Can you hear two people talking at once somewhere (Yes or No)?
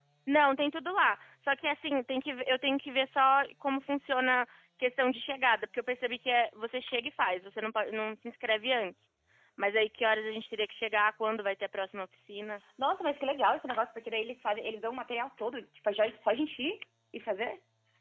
No